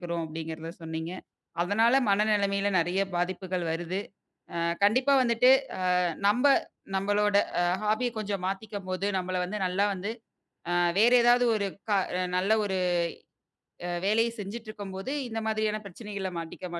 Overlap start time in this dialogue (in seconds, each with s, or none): none